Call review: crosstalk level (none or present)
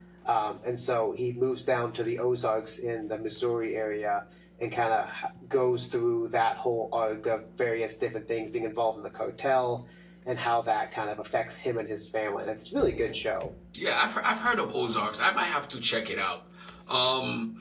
none